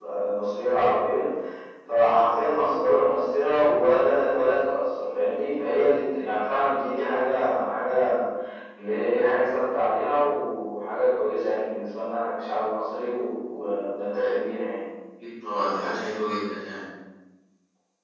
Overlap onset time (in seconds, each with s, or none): none